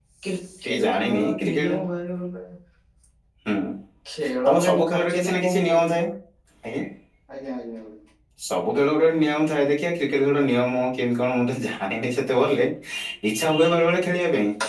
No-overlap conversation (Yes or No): No